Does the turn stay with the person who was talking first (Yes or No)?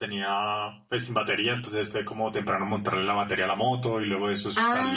No